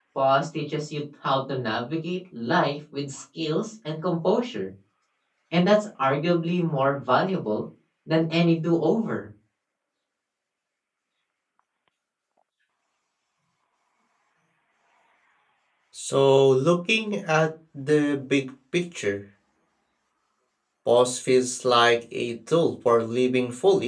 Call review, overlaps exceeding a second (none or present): none